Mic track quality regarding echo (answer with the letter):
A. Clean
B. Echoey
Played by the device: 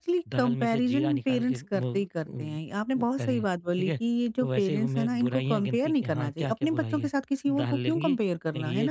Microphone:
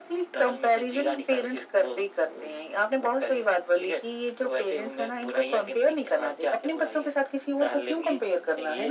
B